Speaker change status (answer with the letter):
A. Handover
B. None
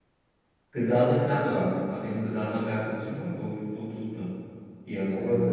A